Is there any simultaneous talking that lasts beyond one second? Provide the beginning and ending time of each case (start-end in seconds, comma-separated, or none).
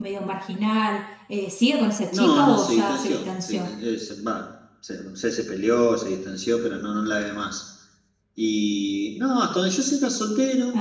2.1-3.7